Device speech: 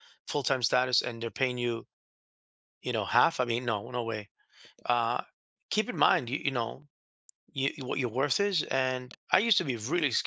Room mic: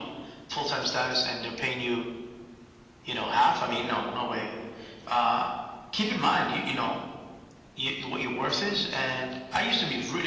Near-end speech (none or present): none